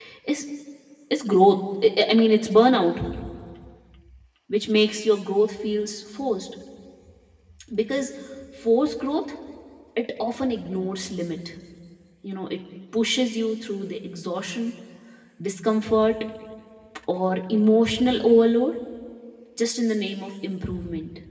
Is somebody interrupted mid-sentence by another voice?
No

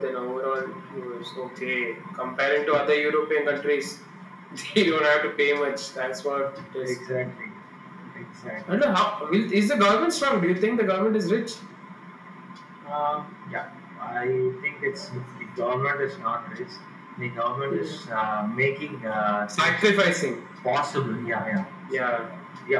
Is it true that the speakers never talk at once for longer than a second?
Yes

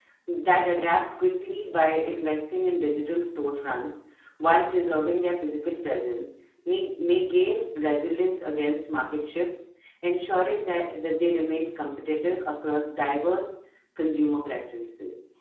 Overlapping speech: No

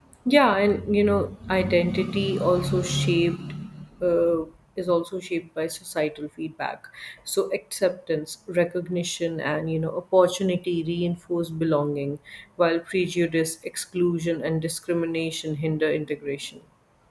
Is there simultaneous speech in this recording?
No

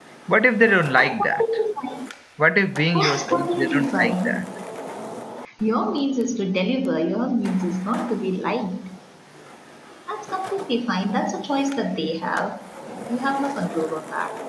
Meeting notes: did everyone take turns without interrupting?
No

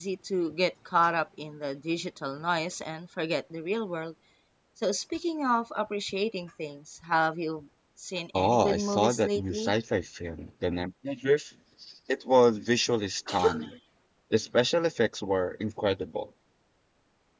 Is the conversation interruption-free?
No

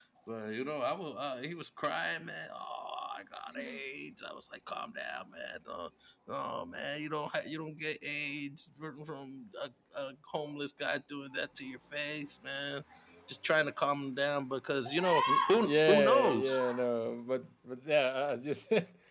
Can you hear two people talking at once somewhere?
Yes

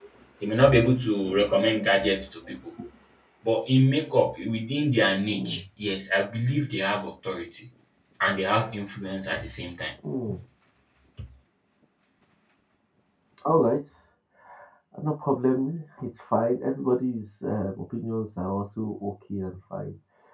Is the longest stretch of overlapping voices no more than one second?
Yes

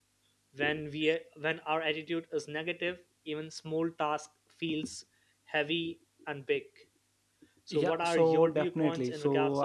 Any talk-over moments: Yes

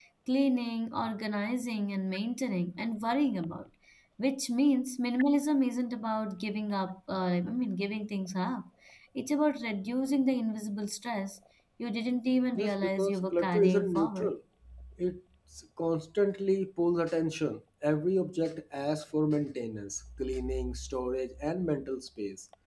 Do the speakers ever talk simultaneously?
Yes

